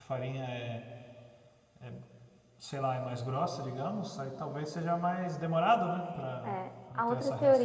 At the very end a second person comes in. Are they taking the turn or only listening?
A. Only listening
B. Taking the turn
B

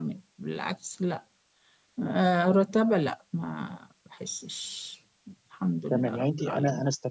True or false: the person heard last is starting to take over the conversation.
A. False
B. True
B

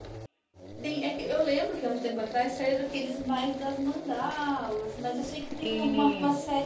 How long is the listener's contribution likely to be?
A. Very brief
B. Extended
A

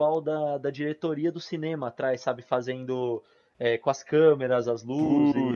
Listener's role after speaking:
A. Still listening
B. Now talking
A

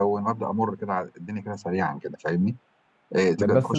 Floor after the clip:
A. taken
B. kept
A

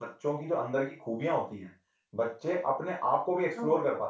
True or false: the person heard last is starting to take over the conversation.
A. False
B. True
A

